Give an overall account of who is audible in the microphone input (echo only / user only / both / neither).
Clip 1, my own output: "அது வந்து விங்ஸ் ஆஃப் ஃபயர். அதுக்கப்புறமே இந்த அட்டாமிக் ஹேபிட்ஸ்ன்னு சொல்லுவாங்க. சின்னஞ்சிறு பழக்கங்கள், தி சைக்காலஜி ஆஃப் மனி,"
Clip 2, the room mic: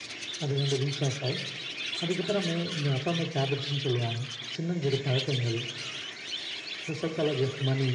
echo only